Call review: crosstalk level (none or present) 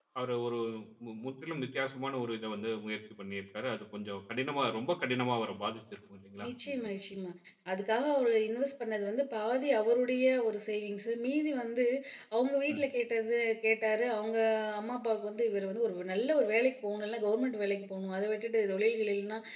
none